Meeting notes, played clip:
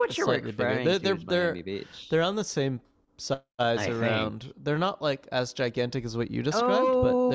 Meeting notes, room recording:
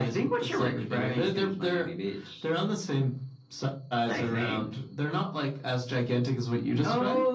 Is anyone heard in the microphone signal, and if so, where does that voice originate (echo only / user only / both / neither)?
echo only